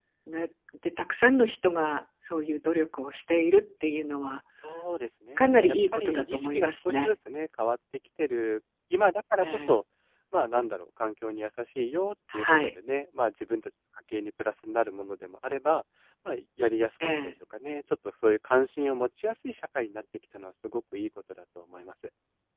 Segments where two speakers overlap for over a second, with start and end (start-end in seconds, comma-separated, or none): 5.3-7.1